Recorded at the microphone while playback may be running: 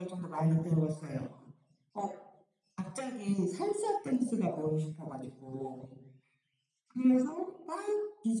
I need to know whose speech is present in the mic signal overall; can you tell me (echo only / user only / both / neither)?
echo only